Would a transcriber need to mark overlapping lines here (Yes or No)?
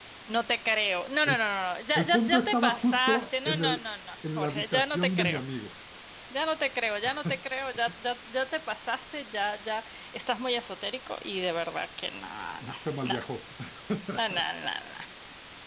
Yes